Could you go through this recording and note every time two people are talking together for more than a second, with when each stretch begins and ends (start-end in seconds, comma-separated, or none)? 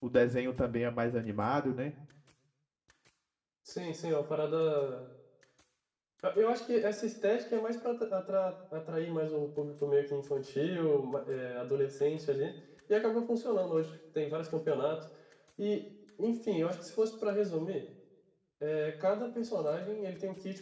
none